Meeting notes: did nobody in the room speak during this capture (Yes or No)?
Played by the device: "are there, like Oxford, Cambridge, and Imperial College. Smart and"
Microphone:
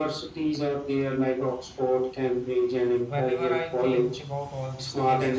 No